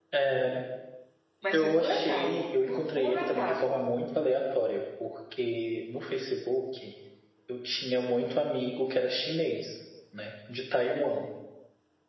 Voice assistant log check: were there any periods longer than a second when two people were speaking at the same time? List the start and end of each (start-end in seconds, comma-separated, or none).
1.5-3.8